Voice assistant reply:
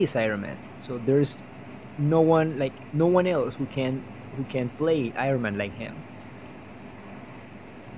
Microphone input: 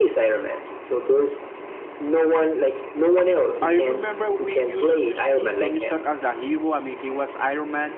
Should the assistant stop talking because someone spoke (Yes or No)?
Yes